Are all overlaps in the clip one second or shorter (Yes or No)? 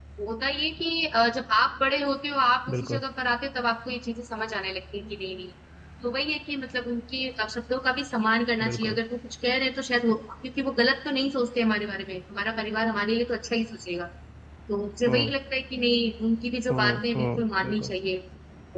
No